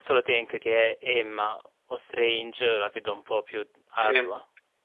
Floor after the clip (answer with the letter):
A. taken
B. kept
A